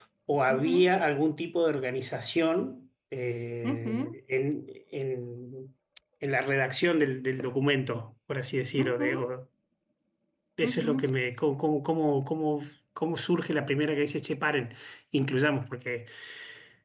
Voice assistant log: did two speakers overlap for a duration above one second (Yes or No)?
No